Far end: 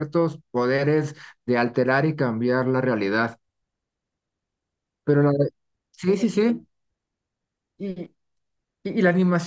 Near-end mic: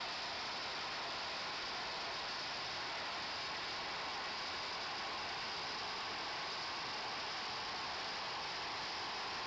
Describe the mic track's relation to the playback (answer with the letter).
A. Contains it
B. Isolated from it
B